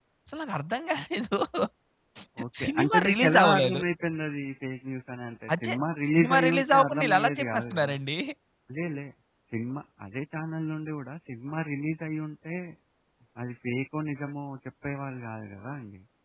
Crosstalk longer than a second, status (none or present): present